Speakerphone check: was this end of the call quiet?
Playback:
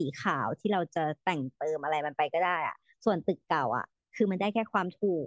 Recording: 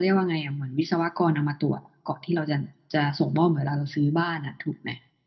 No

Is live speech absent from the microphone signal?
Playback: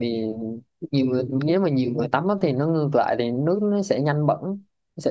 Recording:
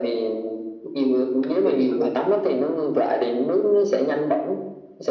No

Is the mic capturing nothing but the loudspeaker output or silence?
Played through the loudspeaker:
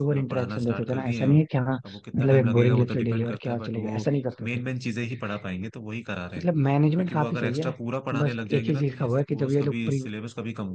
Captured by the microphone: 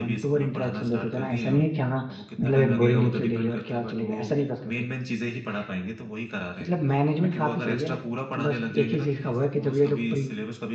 Yes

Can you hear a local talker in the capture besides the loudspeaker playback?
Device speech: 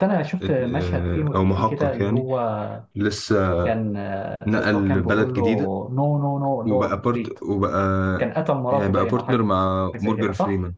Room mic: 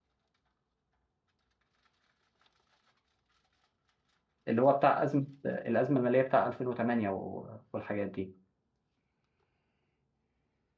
Yes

